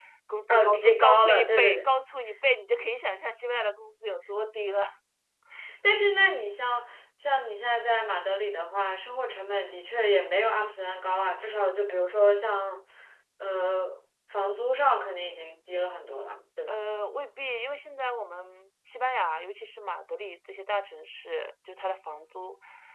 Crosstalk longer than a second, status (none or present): present